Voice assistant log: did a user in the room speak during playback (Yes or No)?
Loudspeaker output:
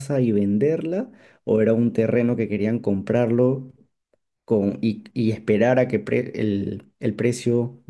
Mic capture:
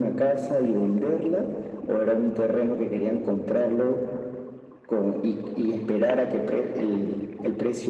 No